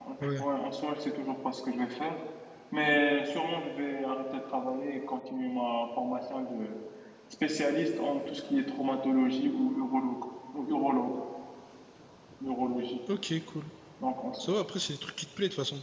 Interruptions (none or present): none